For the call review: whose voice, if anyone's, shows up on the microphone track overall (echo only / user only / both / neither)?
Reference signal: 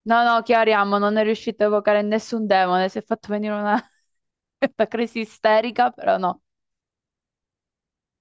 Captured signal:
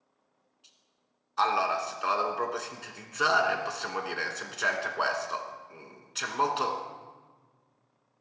user only